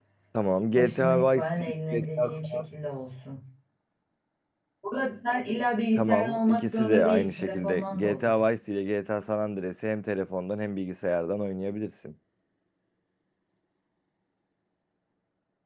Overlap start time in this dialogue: 0.8 s

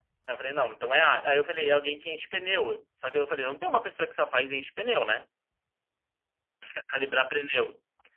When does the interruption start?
none

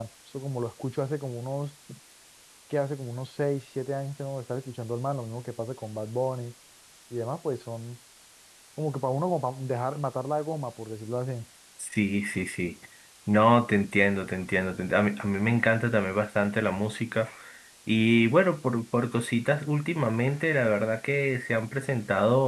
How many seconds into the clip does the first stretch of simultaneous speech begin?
none

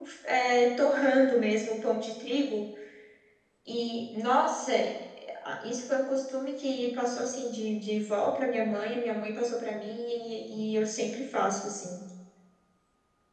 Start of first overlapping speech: none

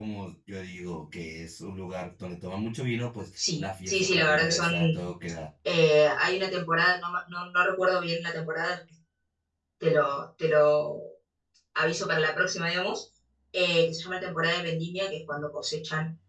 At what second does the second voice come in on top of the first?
3.4 s

